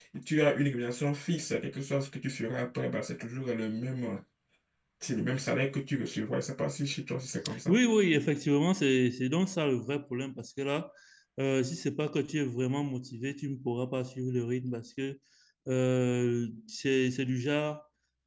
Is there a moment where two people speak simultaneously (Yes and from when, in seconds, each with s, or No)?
No